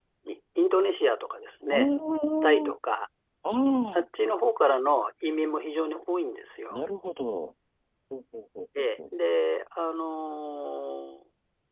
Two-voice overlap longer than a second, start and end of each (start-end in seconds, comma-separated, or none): none